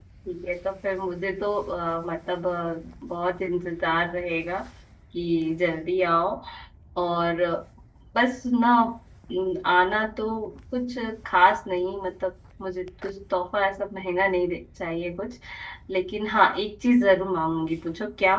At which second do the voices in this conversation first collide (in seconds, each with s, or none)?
none